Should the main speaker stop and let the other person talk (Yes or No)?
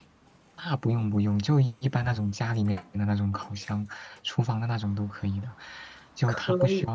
No